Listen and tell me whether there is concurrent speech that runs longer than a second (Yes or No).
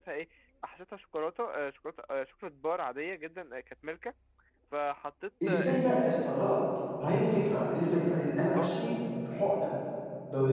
No